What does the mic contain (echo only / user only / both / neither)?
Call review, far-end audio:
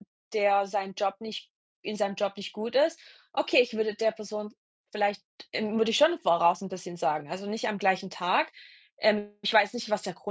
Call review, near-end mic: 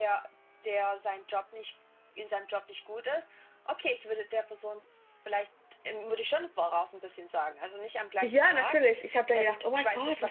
both